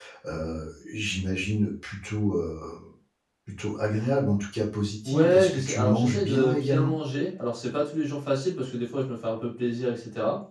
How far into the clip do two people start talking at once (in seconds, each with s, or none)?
5.0 s